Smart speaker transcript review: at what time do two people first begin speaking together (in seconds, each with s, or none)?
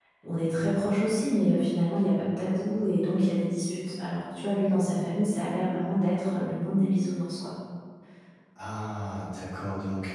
none